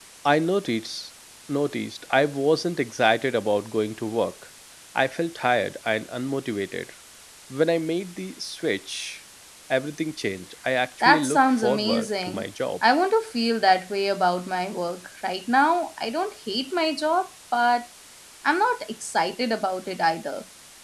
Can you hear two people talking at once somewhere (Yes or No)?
Yes